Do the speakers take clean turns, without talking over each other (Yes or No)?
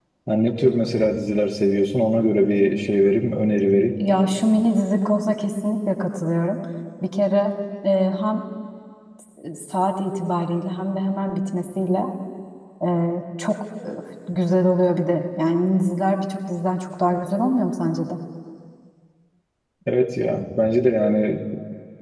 Yes